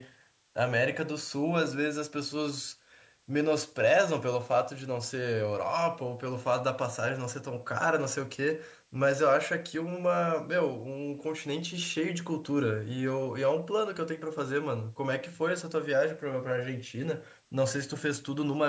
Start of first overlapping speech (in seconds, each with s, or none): none